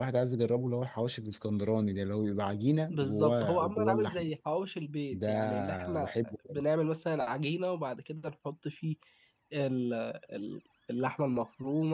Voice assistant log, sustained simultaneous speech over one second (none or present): present